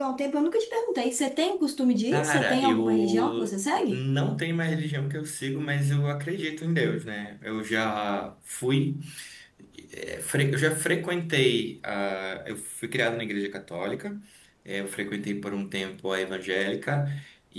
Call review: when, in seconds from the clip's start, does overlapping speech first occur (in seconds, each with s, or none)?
2.1 s